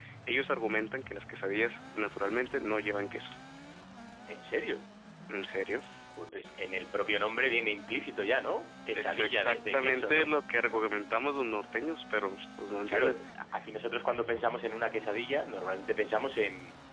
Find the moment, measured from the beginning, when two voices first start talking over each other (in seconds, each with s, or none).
8.9 s